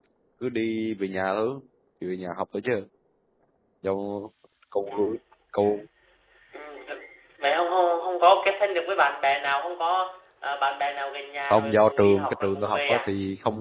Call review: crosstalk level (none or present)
present